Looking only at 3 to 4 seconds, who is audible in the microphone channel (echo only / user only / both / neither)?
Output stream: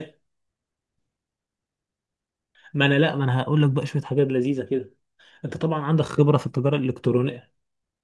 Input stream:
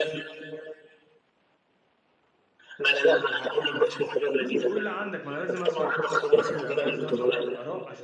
echo only